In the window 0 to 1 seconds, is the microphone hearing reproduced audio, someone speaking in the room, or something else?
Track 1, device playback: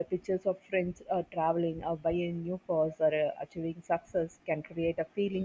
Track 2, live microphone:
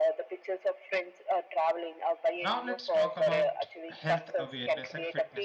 echo only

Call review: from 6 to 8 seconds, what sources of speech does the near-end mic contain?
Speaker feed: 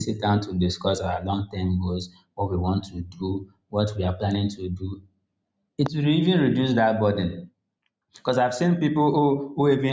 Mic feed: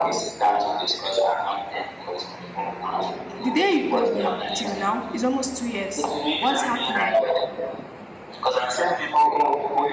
both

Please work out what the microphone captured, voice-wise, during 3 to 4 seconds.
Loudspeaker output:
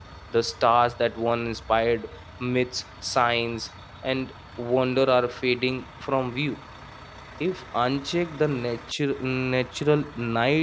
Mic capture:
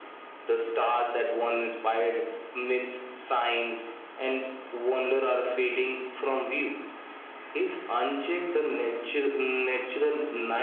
echo only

